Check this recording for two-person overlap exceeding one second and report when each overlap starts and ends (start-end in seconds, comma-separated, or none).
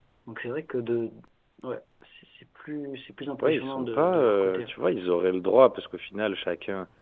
3.4-4.7